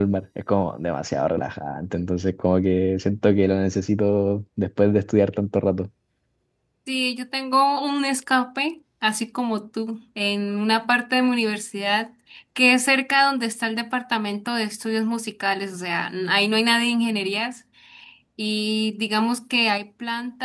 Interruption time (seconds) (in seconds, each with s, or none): none